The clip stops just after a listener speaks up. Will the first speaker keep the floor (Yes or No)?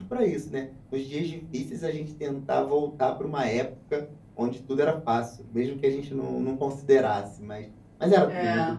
Yes